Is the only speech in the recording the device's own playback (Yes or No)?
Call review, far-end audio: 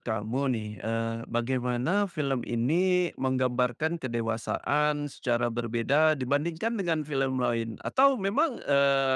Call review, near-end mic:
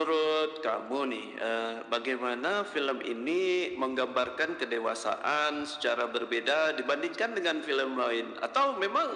Yes